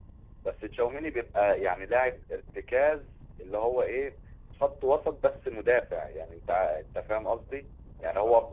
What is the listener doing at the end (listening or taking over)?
listening